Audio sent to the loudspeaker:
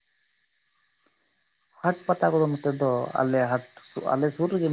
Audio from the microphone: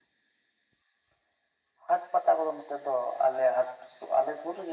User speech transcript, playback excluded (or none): none